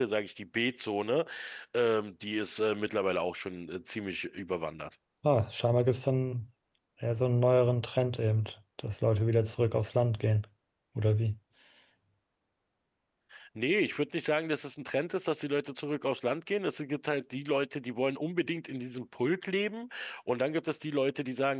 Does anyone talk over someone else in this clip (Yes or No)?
No